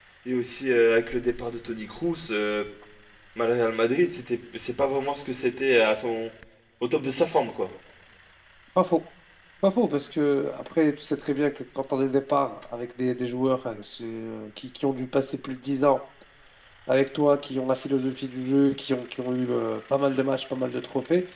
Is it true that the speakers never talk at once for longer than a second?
Yes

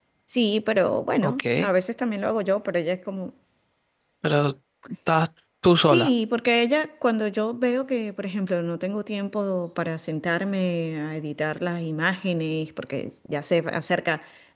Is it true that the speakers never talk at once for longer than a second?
Yes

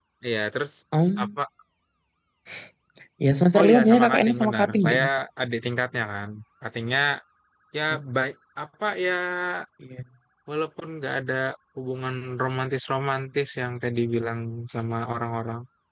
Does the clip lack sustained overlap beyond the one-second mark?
No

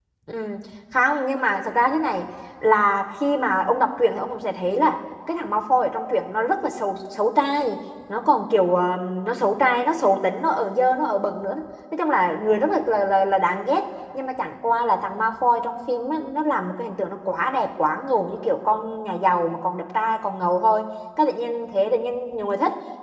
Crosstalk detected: No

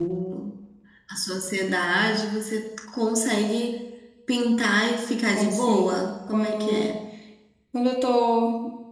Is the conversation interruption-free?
No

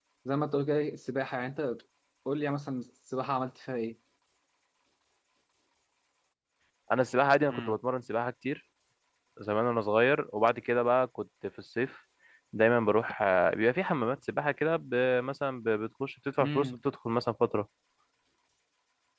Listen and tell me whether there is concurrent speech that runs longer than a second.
No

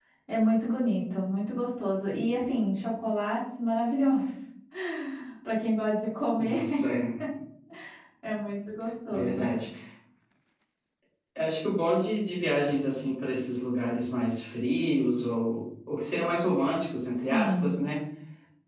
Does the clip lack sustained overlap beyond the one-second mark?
Yes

